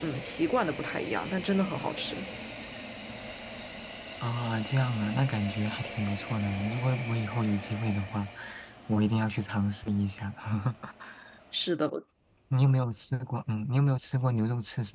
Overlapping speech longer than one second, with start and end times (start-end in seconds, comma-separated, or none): none